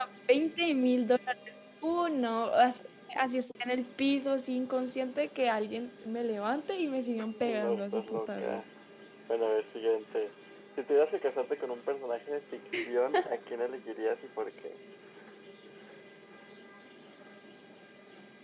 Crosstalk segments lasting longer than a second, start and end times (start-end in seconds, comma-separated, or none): 7.2-8.6